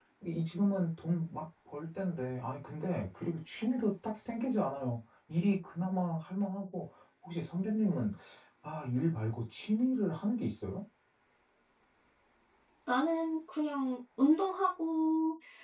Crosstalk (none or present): none